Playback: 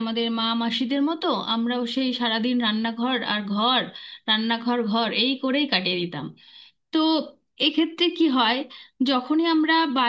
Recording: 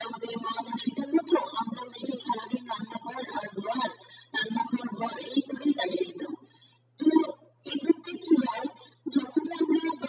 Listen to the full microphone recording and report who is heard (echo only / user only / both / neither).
echo only